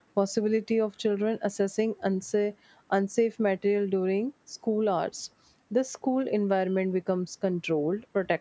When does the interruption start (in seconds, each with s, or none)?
none